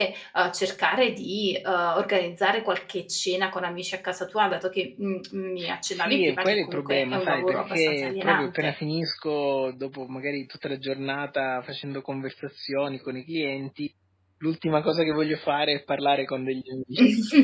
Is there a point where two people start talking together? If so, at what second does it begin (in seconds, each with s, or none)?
5.9 s